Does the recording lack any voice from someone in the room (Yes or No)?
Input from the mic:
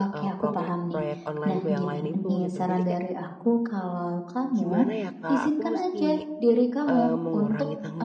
No